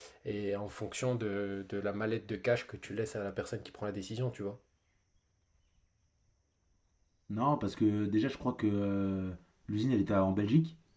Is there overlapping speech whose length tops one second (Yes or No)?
No